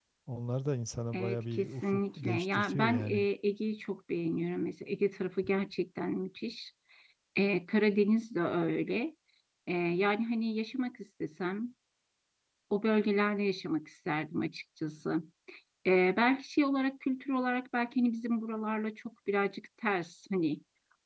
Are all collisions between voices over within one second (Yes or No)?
No